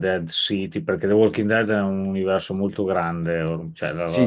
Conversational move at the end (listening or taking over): taking over